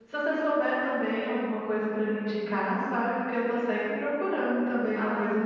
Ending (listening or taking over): taking over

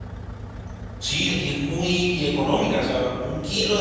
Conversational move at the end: listening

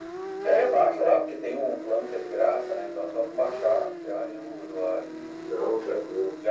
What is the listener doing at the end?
taking over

